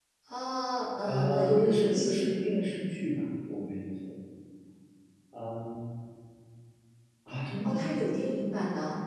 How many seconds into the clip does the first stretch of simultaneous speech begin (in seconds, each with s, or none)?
1.1 s